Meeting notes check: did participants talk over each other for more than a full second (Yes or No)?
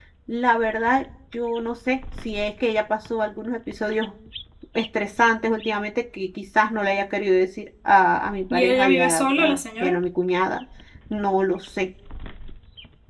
Yes